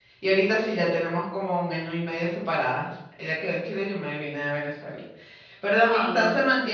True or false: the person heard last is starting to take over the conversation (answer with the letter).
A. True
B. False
B